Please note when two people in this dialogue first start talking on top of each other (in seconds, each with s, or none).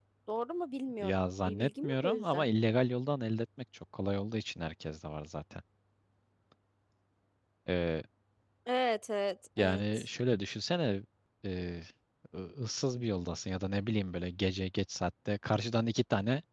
1.0 s